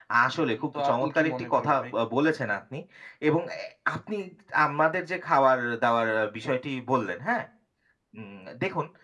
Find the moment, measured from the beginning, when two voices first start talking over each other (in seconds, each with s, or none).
0.6 s